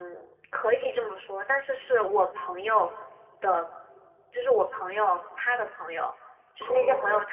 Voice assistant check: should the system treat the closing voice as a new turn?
No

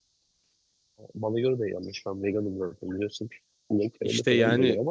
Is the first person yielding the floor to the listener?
Yes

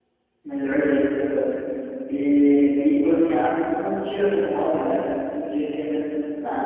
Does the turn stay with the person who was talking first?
No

